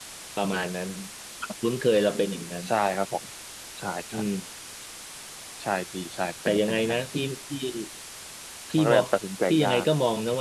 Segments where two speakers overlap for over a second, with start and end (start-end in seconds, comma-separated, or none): none